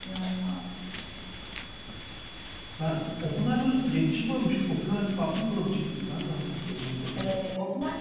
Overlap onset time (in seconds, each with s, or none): none